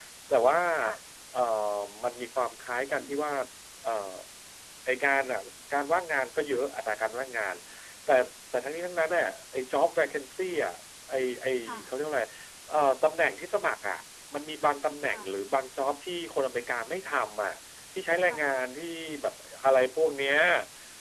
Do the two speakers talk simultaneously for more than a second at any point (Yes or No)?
No